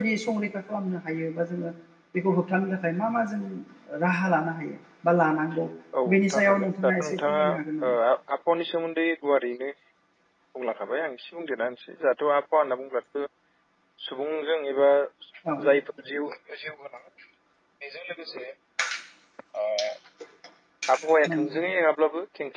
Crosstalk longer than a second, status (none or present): present